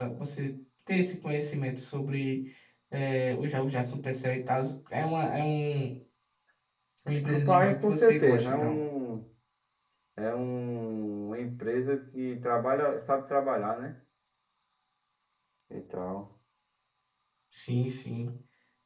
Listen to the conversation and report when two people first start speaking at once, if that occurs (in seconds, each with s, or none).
7.2 s